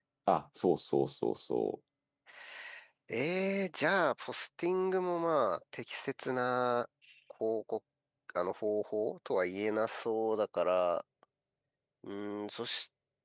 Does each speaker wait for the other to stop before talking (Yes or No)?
Yes